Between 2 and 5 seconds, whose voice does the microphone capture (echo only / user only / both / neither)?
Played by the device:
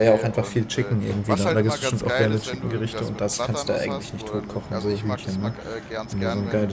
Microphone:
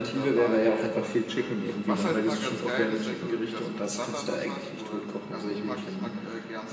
echo only